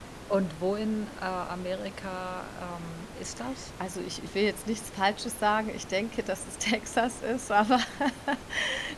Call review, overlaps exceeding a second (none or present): none